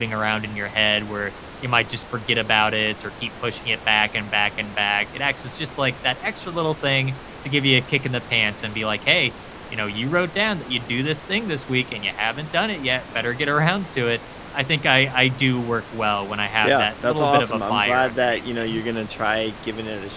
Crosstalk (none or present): present